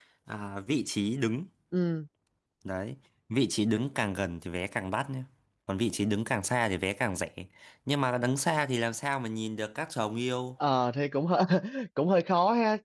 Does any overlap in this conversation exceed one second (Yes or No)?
No